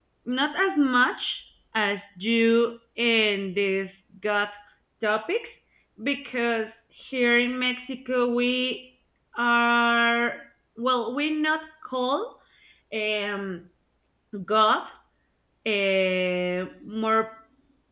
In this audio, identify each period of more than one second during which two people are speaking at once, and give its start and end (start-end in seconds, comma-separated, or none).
none